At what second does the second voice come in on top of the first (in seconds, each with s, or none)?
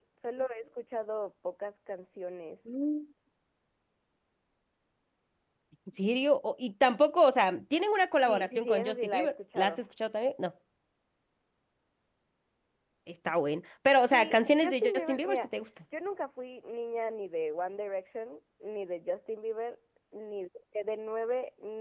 8.3 s